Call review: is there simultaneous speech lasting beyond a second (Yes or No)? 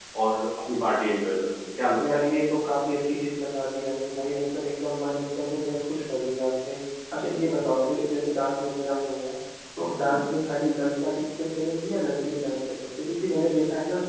No